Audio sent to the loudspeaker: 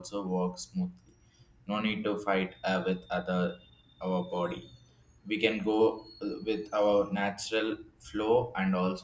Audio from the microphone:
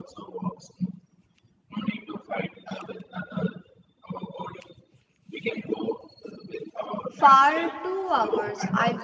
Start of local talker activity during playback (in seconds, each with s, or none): 7.1 s